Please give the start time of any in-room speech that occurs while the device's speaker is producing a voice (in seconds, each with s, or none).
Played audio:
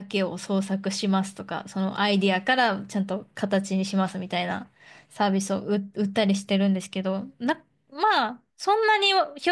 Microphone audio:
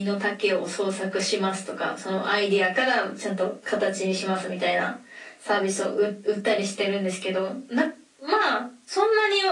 none